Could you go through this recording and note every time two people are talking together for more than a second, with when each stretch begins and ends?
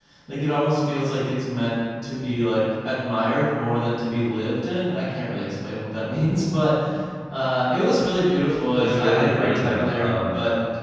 8.8-10.3

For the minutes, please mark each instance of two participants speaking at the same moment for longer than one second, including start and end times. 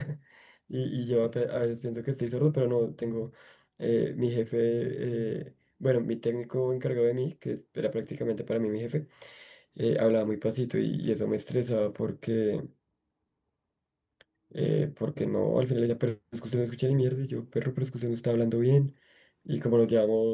none

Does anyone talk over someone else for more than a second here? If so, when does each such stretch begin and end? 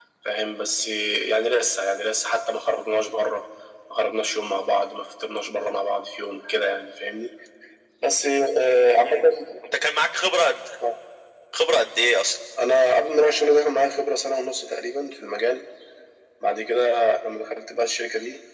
none

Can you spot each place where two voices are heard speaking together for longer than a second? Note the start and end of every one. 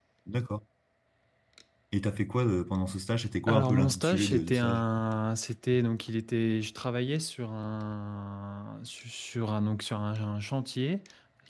3.5-4.8

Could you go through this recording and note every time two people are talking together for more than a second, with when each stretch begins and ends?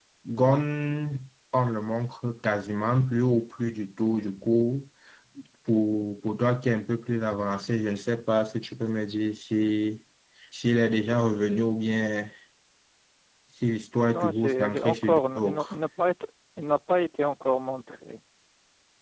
14.1-15.8

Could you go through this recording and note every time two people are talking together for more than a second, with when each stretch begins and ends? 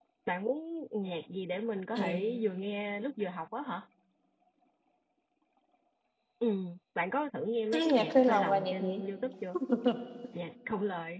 7.7-9.0

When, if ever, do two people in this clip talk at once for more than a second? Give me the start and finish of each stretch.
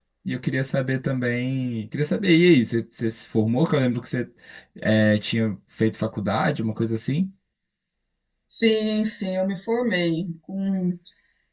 none

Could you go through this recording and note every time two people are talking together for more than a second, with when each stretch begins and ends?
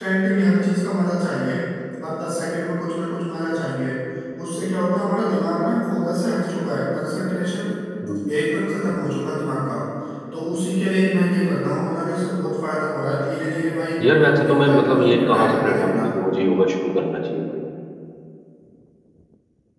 14.0-16.1

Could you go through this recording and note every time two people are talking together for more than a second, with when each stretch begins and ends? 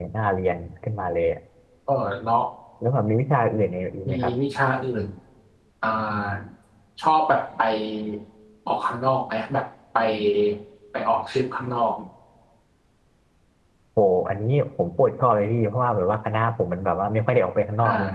none

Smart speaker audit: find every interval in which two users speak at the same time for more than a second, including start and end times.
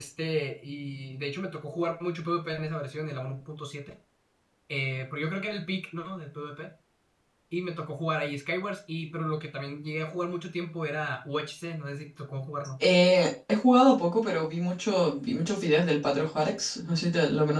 none

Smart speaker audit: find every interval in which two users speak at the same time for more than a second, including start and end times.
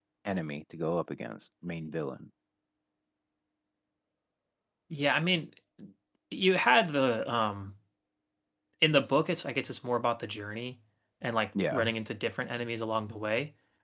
none

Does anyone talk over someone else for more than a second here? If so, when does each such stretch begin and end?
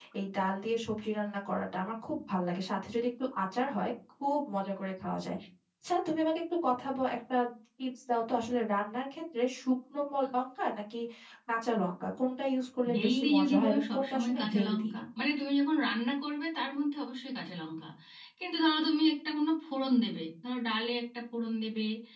12.9-14.9

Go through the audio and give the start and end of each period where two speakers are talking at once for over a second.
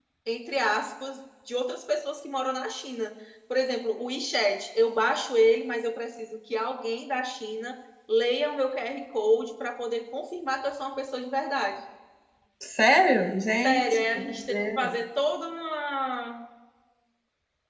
13.6-14.9

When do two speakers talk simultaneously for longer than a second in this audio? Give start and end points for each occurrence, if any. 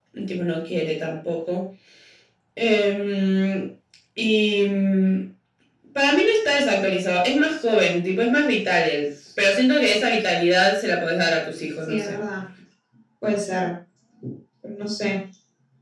none

